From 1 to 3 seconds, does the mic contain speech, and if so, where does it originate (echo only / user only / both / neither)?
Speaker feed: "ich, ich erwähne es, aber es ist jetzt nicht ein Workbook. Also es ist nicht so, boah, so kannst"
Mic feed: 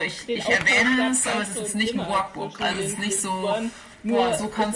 both